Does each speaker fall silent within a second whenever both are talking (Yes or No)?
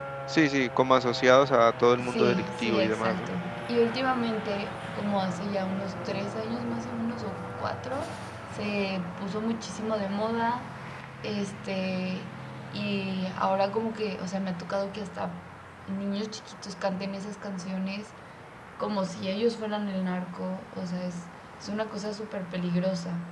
No